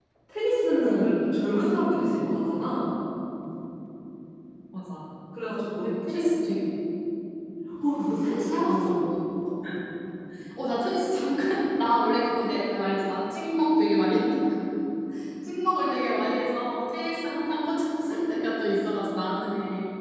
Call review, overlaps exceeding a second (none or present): none